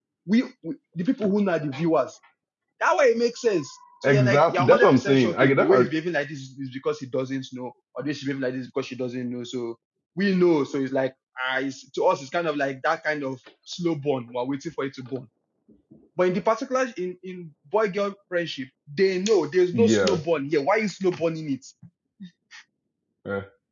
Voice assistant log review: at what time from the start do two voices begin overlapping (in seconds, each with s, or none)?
4.0 s